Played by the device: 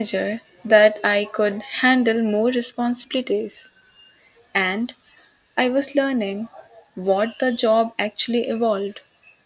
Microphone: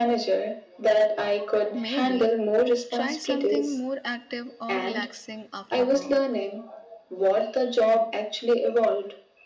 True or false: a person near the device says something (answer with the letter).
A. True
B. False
A